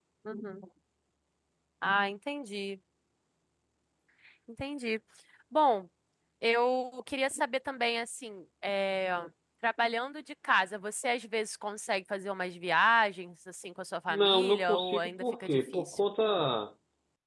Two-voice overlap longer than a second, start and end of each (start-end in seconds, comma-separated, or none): 14.1-16.0